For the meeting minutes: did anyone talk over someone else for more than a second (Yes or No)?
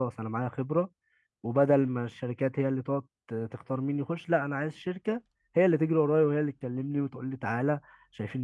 No